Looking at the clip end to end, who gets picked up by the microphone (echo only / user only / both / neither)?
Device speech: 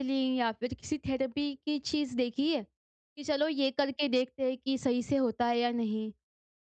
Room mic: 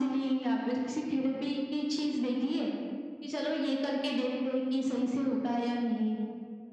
echo only